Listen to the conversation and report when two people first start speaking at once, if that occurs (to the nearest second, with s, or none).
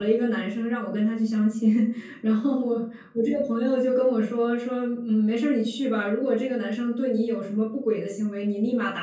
none